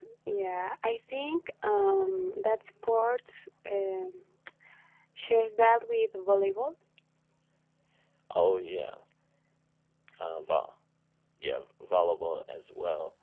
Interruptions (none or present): none